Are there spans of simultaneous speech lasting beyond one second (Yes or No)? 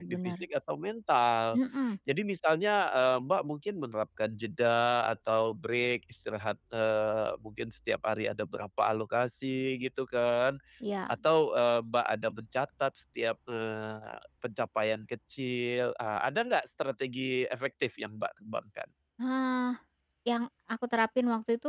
No